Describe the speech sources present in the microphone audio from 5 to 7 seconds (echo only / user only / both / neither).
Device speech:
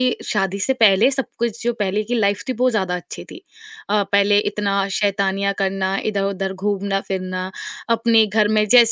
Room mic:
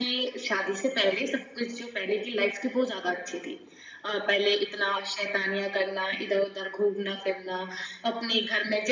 echo only